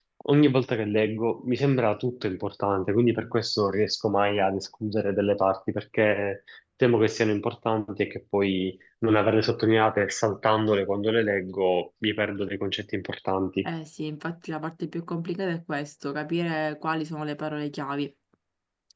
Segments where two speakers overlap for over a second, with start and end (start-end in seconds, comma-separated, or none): none